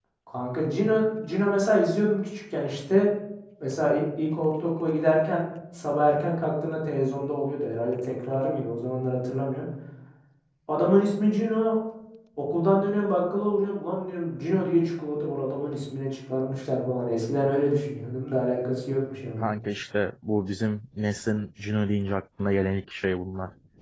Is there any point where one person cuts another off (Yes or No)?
No